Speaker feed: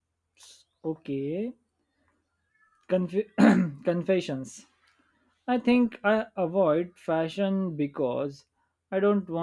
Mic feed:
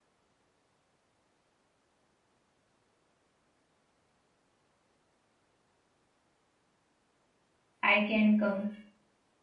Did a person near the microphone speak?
Yes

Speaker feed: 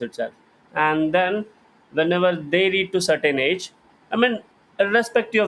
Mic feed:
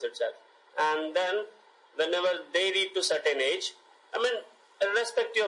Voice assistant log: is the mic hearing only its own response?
Yes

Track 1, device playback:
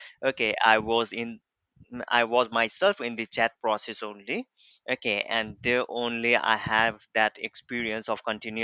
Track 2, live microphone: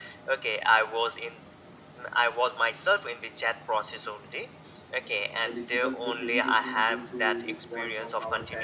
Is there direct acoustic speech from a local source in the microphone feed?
Yes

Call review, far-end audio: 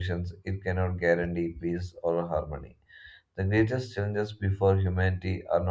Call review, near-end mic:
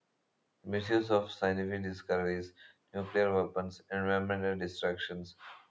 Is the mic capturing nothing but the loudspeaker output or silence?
No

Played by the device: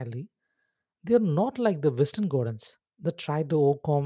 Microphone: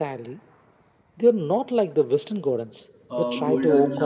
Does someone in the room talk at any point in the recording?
Yes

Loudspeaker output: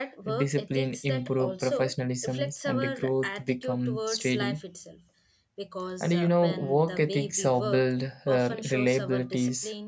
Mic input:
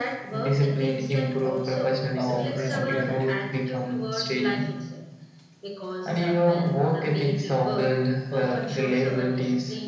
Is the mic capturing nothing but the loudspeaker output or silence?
No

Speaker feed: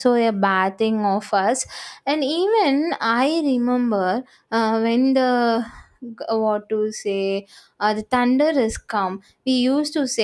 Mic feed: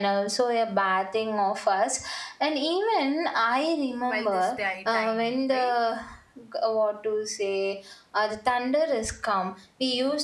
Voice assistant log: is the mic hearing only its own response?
No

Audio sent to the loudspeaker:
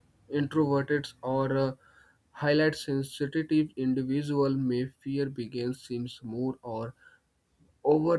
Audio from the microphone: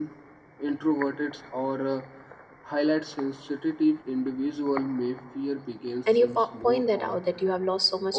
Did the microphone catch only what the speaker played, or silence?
No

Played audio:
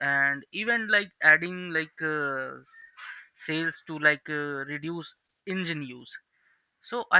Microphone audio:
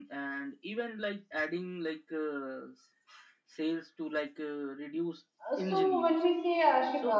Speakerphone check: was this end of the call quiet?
No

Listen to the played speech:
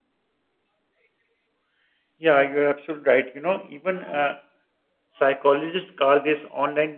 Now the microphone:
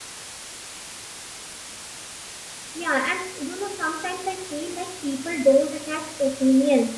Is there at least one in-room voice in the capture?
Yes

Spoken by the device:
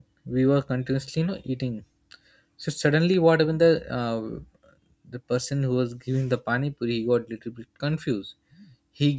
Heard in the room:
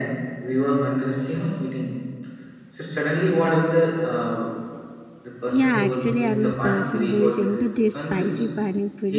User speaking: Yes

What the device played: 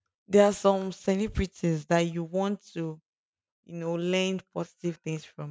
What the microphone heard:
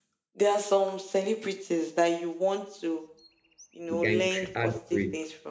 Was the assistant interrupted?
Yes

